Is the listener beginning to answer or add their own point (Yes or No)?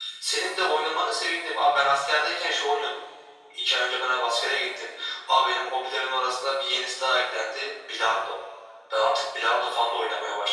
No